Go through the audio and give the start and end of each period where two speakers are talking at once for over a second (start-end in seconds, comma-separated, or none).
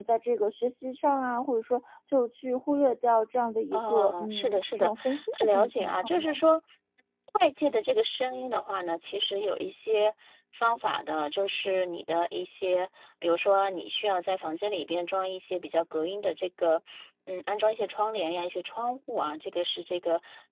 3.7-6.4